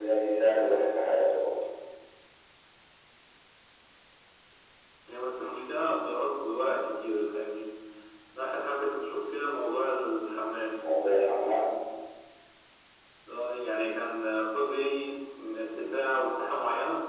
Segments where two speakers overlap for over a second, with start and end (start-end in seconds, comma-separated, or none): none